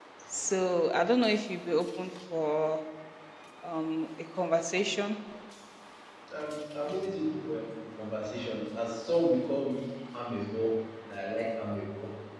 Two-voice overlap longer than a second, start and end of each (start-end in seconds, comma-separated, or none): none